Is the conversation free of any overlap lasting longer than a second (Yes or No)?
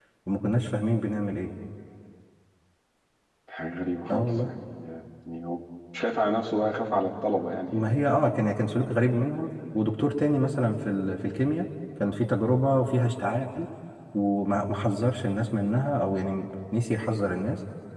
Yes